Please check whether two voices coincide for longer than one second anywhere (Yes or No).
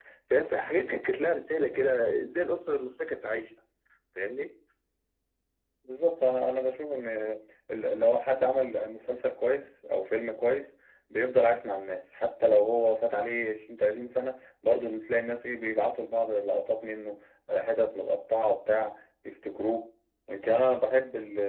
No